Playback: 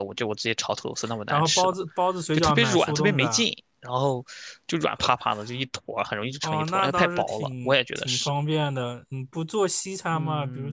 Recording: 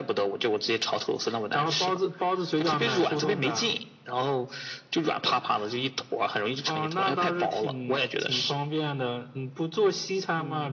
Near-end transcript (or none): none